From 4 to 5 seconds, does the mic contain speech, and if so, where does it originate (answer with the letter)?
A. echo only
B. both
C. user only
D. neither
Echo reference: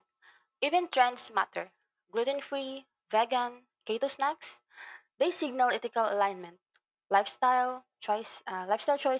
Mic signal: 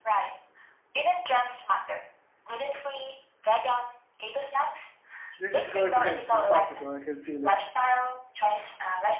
A